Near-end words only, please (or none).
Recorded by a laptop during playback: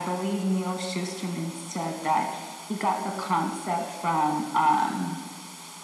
none